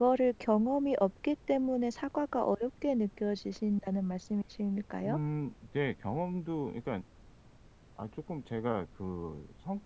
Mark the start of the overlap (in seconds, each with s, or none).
none